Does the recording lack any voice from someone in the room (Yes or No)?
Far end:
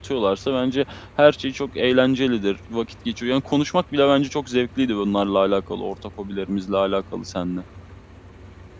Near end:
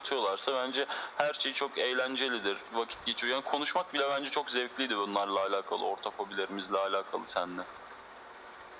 Yes